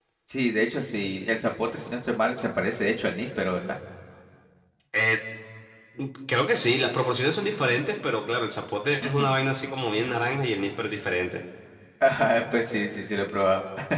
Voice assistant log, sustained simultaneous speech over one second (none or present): none